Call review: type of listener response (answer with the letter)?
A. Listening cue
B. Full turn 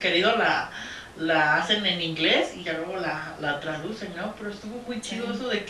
A